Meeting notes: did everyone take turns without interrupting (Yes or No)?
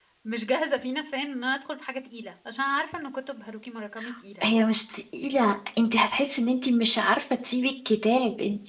Yes